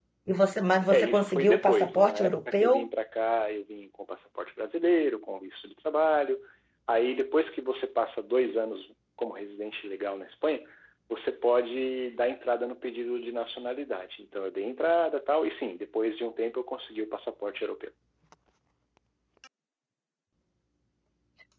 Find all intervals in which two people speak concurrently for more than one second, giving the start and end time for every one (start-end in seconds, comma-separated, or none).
0.9-2.9